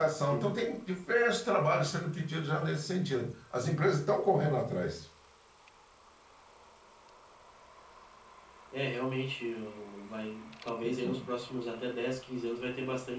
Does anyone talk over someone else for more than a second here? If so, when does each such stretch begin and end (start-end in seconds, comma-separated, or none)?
none